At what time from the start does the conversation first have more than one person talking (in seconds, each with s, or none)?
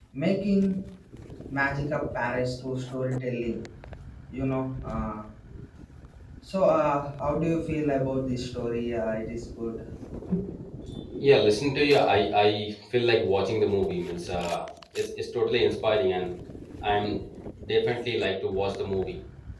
none